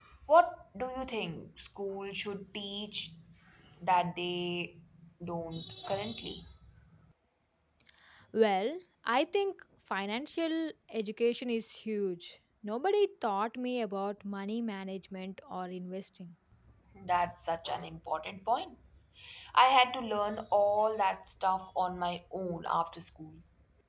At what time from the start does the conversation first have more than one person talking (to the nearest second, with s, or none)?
none